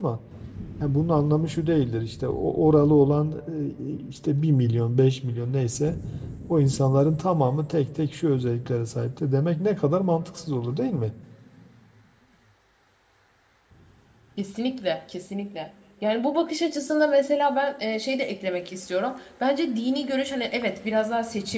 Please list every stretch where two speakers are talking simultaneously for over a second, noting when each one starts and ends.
none

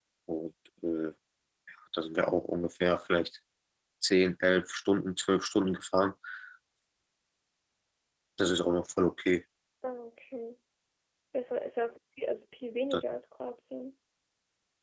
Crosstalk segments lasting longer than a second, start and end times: none

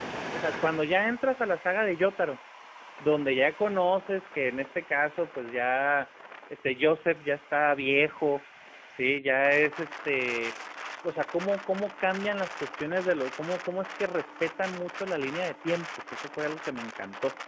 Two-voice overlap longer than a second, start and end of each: none

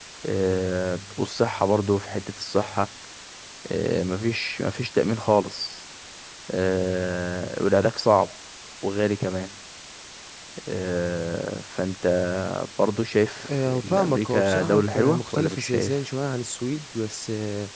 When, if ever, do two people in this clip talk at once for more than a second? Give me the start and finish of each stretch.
13.5-16.0

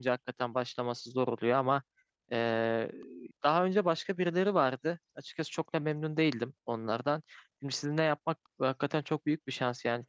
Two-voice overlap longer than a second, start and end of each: none

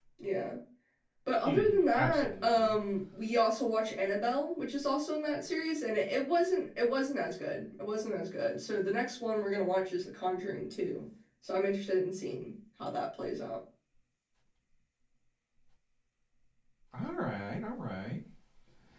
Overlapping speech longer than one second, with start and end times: 1.4-2.8

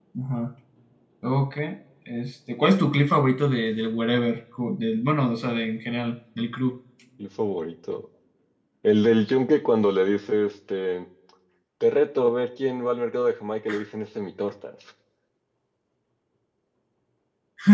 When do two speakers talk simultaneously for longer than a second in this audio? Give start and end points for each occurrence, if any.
none

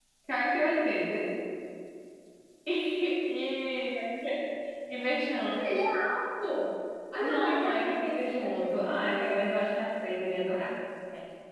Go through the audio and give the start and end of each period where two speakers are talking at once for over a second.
7.2-9.4

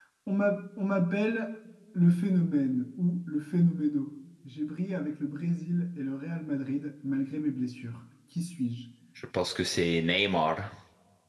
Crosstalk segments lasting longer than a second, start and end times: none

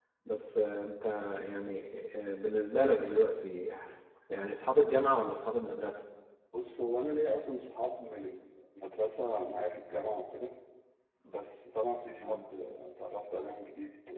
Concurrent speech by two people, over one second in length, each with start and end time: none

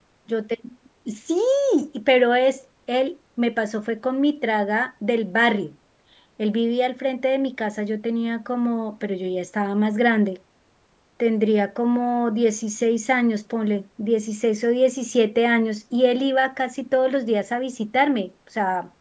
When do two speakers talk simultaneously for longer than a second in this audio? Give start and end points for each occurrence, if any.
none

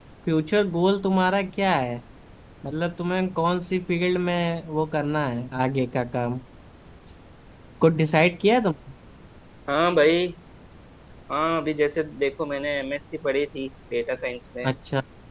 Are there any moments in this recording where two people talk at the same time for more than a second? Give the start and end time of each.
none

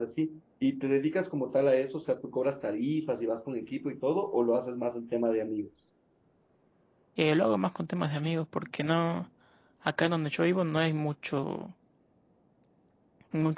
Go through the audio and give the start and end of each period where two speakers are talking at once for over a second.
none

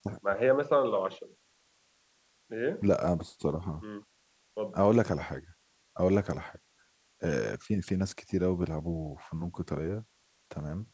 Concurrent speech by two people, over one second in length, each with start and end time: none

